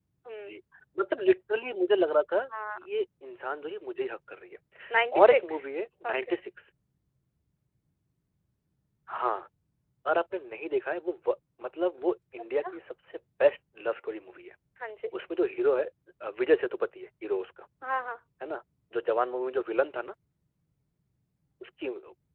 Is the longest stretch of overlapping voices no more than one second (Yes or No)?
Yes